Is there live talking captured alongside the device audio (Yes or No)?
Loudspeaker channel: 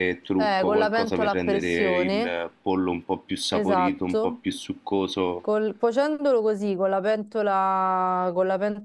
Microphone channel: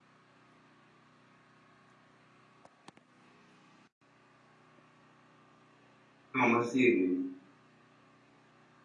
Yes